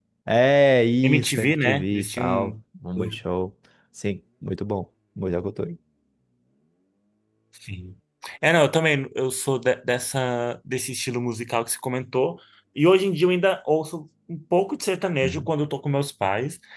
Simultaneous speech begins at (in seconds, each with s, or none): 1.0 s